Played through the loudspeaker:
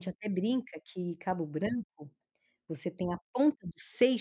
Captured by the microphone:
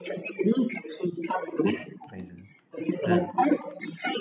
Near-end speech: present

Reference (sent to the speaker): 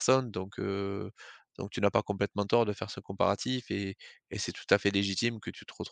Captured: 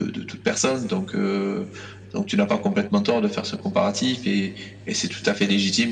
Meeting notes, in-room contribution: none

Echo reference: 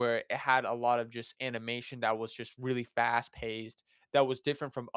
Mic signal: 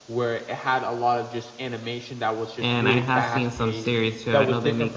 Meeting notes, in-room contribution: present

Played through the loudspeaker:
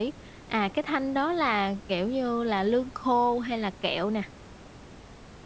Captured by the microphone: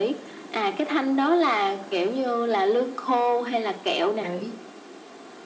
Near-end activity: present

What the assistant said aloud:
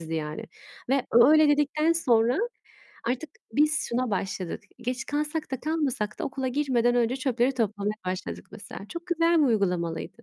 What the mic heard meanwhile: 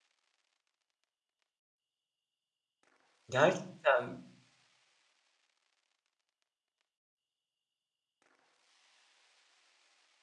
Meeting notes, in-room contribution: present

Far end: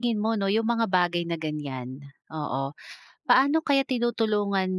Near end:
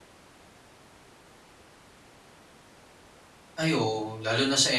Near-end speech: present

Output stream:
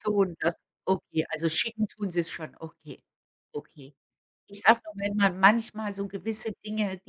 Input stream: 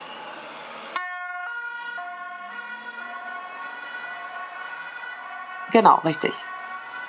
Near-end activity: present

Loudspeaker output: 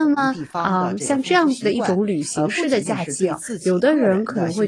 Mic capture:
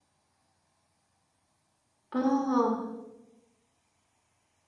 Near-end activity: present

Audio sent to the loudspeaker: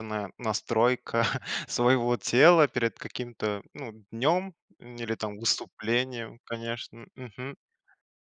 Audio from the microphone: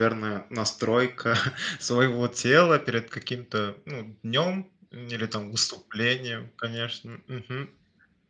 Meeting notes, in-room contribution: none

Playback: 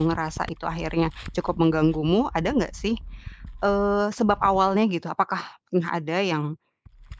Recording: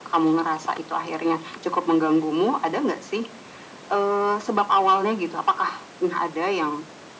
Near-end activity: none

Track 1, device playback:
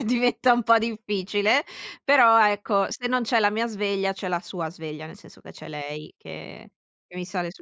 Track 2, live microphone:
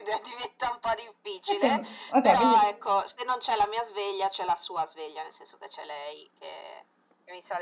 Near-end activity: present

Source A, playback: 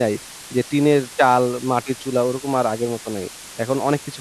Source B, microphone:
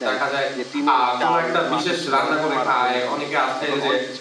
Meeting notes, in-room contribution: present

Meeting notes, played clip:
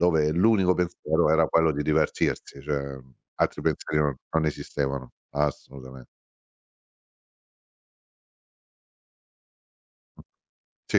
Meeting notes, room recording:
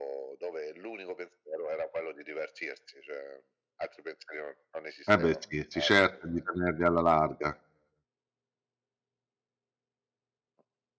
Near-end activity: present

